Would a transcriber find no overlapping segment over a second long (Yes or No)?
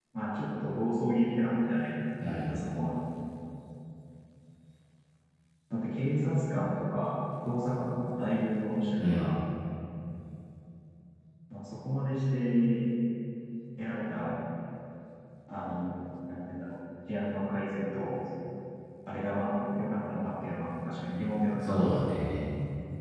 Yes